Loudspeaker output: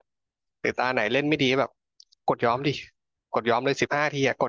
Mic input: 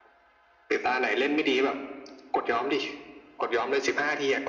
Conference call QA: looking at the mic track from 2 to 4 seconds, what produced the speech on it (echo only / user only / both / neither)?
echo only